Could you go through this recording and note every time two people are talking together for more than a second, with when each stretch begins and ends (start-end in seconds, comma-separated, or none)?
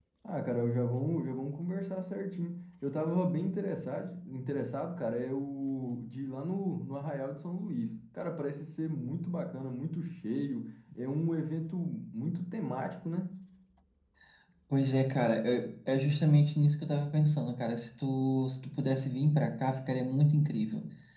none